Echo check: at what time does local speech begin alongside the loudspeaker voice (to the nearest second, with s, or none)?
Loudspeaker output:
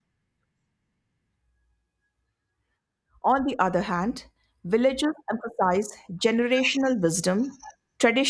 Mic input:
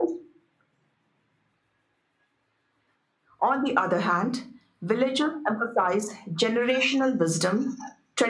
none